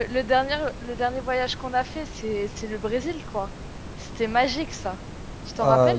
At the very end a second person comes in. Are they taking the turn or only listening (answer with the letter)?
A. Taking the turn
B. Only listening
A